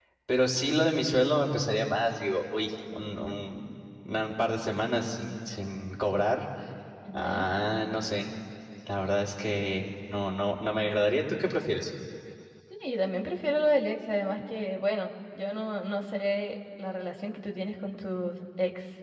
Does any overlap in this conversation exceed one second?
No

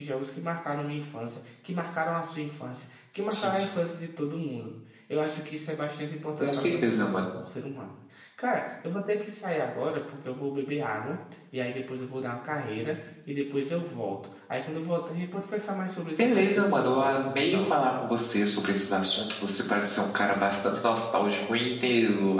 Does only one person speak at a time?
No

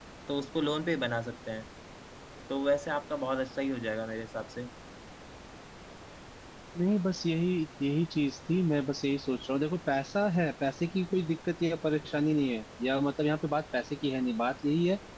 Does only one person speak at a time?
Yes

